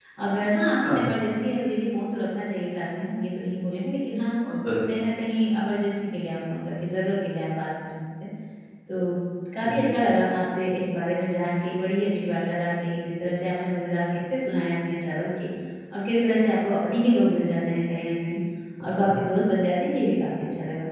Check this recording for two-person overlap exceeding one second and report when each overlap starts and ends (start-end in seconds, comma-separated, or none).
none